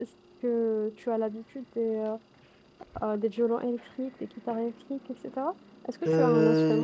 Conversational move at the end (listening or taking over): taking over